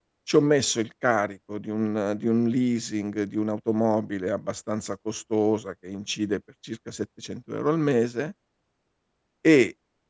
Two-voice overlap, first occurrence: none

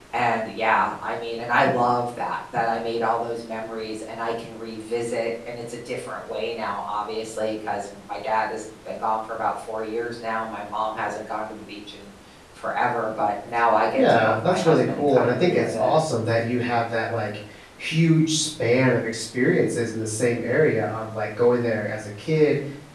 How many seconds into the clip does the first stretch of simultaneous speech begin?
14.0 s

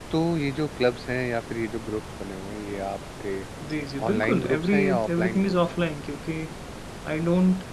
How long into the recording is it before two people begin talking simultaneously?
4.1 s

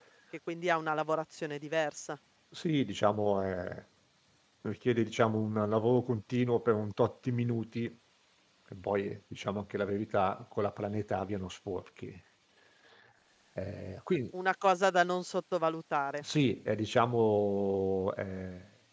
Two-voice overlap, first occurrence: none

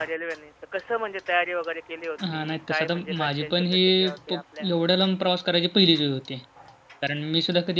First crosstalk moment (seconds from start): 2.2 s

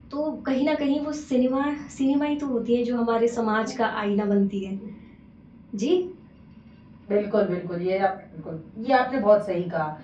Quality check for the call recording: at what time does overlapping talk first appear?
none

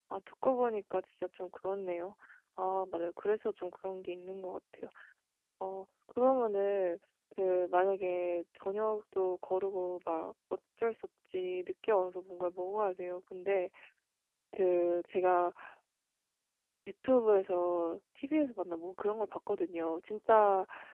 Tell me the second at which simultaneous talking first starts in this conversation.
none

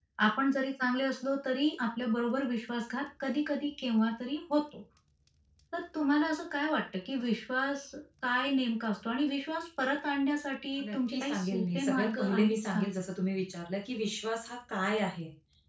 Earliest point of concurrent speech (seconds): 10.8 s

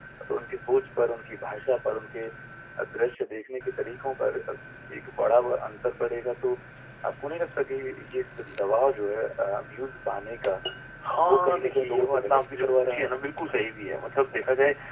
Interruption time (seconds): 11.1 s

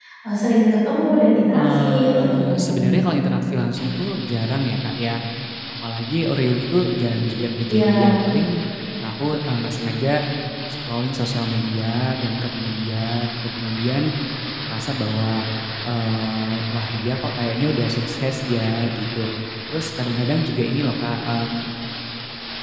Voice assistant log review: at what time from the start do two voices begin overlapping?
1.5 s

